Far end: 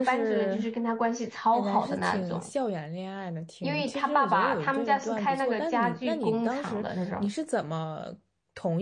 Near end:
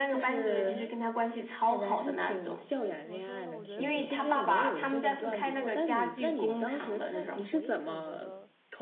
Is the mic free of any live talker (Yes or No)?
No